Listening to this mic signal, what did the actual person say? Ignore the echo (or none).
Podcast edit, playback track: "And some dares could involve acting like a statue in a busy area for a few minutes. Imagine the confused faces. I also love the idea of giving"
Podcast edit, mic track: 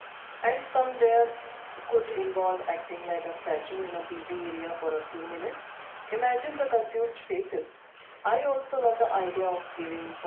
none